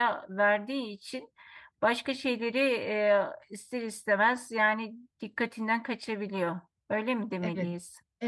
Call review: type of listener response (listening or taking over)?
taking over